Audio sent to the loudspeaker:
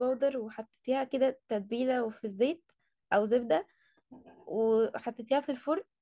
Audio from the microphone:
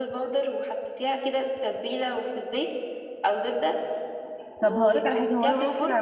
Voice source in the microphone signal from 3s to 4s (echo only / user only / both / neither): echo only